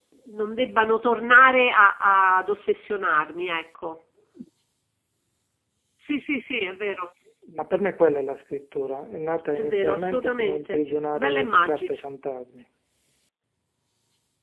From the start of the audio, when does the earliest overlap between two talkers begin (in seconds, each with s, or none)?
9.6 s